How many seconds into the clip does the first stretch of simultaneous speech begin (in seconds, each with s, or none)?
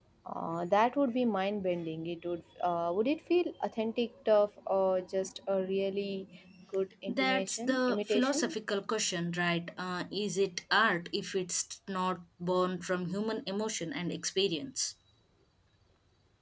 7.1 s